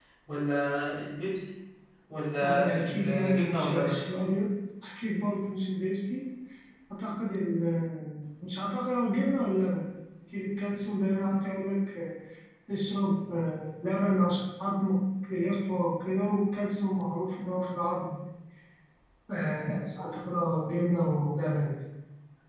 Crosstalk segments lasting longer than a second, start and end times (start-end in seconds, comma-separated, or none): 2.4-4.0